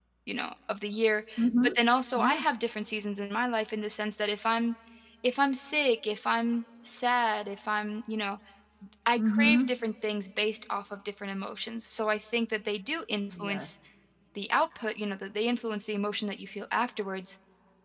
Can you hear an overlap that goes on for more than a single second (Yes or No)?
No